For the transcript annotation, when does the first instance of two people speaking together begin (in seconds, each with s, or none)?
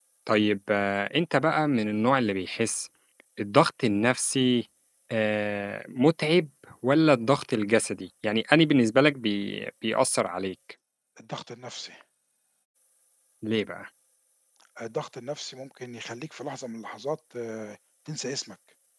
none